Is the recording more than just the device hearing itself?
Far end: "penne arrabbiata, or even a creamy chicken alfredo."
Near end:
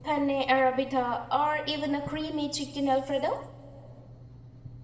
No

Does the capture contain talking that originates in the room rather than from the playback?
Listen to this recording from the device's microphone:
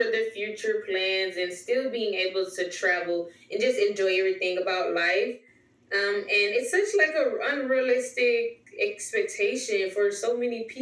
No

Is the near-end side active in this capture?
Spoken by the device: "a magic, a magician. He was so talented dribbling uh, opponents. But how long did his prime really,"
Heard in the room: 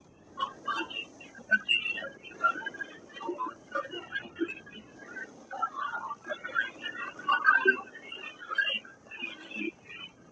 No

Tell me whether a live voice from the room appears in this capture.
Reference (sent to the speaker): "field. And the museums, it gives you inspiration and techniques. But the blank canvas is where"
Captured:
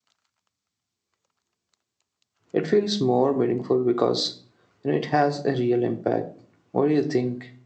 Yes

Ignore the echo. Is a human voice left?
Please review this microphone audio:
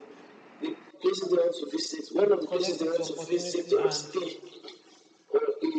Yes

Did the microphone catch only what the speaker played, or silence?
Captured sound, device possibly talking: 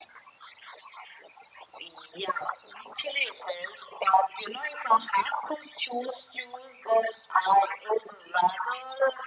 Yes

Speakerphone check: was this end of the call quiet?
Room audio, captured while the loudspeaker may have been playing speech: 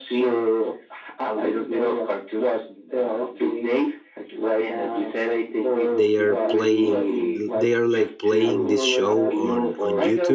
No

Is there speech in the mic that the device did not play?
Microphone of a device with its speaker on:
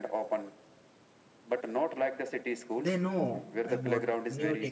Yes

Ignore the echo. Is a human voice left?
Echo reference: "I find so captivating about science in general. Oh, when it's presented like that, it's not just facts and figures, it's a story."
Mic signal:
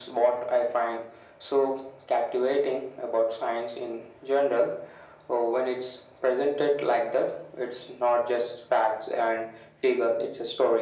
No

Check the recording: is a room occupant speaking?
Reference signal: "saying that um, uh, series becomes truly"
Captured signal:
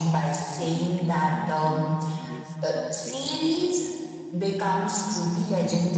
Yes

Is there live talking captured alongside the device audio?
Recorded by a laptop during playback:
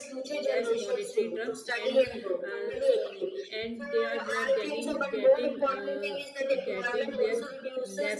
Yes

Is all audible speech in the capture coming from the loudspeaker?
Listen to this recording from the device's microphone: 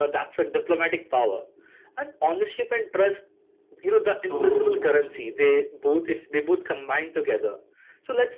No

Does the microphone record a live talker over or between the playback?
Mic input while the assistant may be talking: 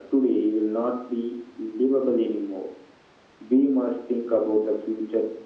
No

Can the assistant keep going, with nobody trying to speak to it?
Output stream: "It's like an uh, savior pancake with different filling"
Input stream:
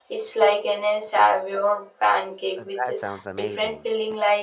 No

